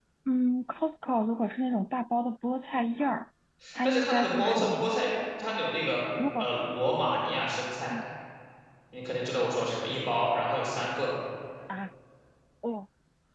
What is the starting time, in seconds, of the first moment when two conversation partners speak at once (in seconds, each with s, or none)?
3.8 s